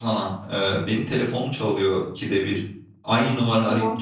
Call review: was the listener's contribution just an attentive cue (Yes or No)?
Yes